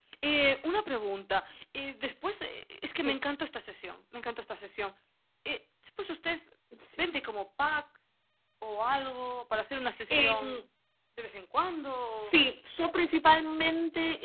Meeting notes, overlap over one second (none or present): none